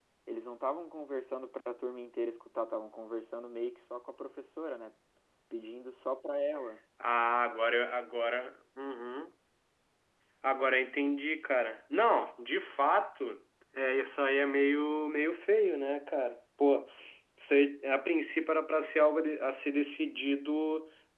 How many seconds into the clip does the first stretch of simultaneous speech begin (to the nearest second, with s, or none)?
none